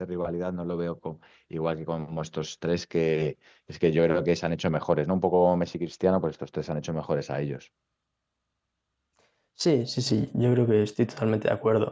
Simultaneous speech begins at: none

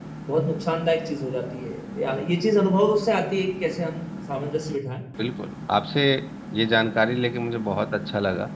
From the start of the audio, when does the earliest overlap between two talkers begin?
none

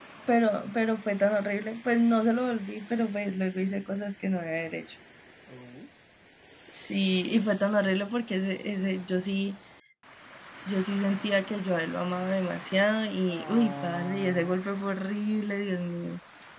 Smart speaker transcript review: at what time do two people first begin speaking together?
13 s

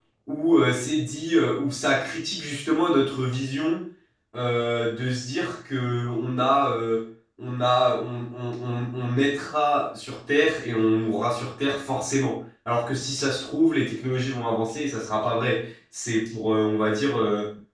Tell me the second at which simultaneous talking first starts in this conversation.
none

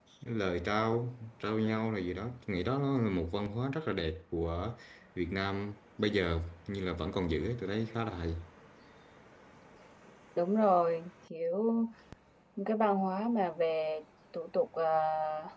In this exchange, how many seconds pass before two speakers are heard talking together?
none

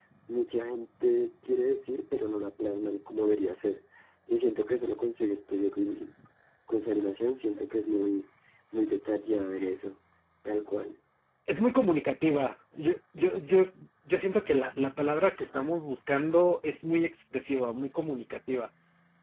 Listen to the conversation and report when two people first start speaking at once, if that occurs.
none

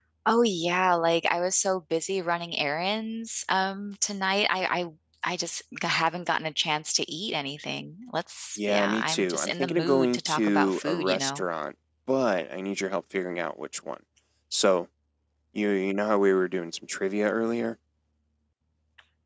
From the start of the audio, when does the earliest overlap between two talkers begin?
9 s

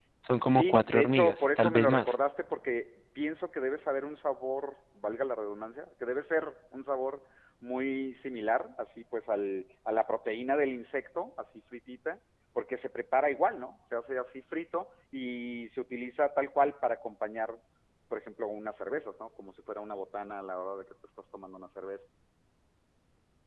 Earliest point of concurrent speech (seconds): 1 s

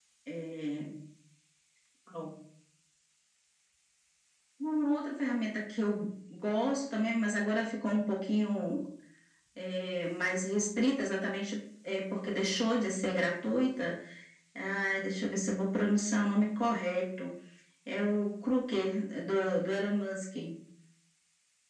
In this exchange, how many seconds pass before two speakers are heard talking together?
none

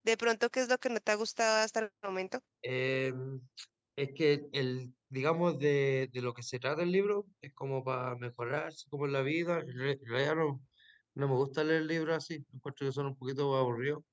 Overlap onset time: none

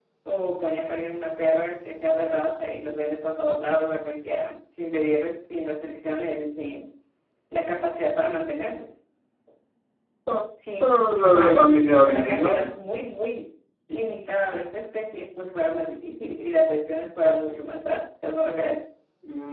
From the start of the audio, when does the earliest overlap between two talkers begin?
11 s

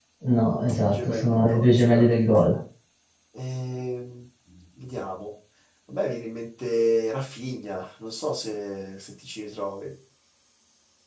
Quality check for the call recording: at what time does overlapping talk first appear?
1 s

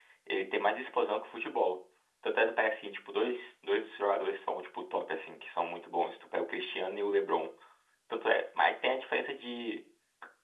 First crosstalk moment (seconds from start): none

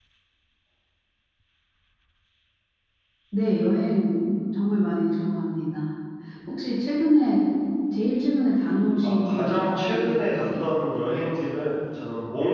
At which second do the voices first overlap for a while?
9 s

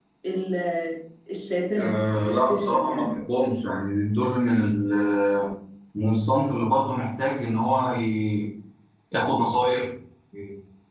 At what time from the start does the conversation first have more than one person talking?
2 s

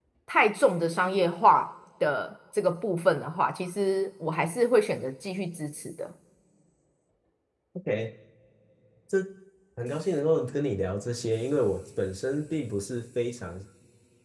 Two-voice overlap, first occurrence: none

